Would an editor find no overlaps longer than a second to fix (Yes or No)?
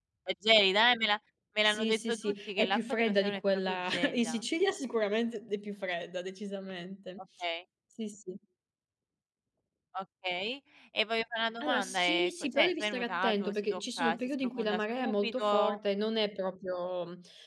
No